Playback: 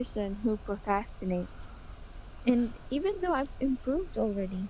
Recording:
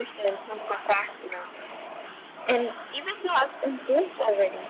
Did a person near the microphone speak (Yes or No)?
No